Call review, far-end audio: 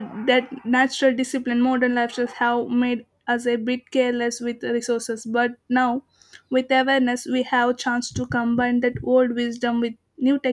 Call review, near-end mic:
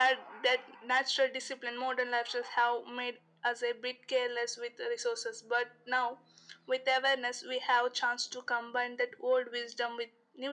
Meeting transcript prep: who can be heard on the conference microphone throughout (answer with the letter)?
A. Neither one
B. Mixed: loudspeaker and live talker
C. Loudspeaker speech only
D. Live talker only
C